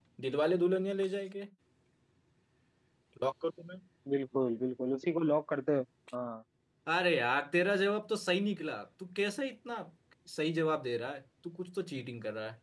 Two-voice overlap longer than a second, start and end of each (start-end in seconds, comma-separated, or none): none